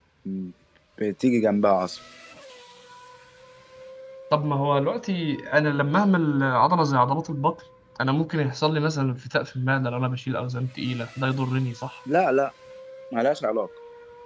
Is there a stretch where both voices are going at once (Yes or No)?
No